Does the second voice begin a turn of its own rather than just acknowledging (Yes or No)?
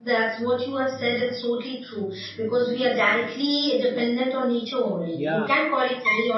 No